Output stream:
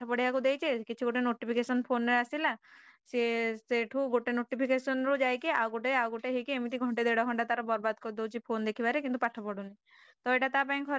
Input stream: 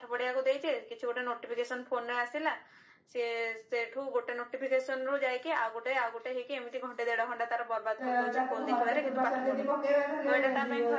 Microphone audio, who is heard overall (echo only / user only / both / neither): both